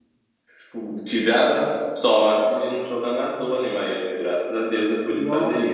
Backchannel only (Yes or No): No